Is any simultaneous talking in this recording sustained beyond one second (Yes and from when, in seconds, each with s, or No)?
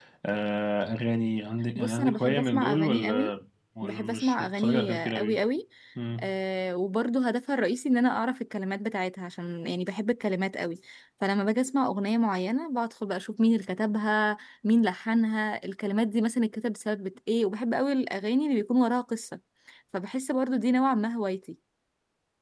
Yes, from 1.8 s